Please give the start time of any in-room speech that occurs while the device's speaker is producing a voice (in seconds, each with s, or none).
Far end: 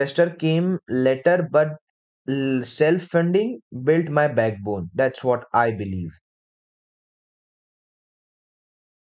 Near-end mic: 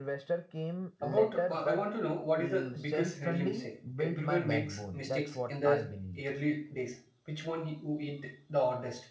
1.0 s